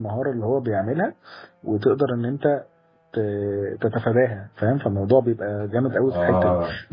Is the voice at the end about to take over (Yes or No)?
No